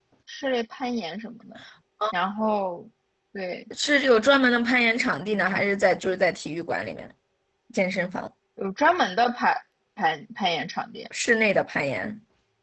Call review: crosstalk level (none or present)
none